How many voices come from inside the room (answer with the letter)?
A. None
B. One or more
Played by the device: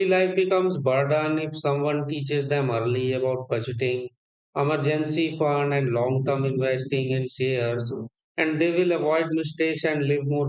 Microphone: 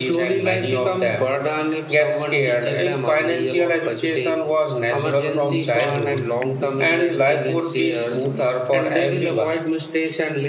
B